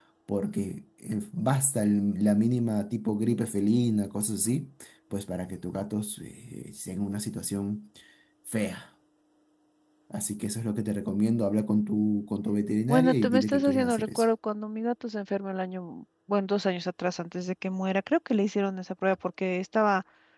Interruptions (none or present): present